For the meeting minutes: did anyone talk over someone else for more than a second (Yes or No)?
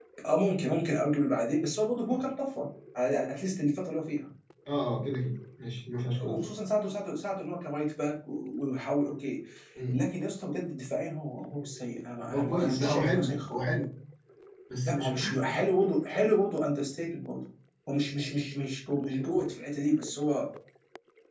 Yes